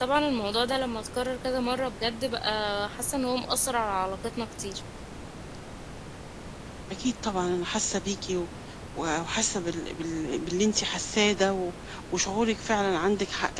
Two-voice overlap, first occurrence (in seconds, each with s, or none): none